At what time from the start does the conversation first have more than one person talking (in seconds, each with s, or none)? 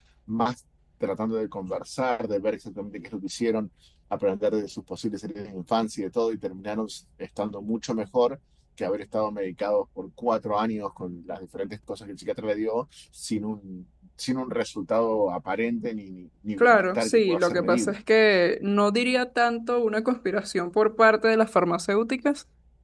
16.6 s